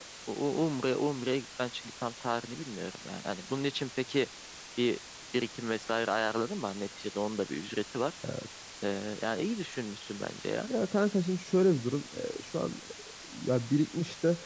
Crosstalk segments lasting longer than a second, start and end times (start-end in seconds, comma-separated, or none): none